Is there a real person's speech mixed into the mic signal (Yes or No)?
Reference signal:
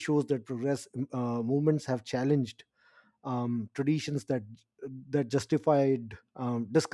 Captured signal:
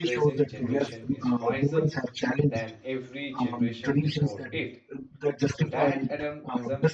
Yes